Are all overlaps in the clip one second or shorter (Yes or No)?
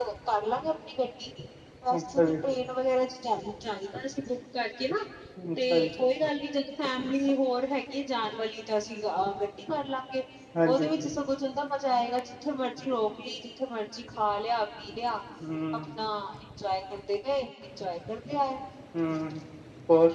Yes